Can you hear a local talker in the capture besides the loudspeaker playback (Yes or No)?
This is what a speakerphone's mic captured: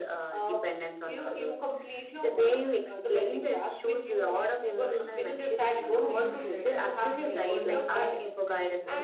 Yes